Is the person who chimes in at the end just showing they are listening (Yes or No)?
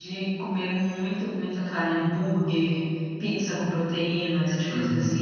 No